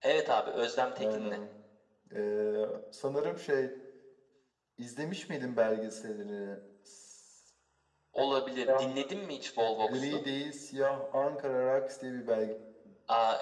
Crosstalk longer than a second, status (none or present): none